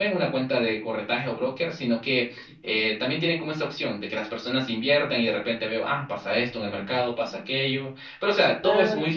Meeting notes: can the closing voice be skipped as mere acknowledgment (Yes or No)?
Yes